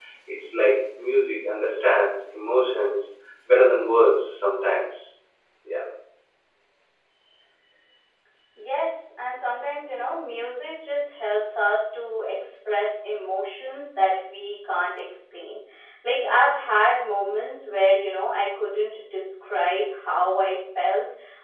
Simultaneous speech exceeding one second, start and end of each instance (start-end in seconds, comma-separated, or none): none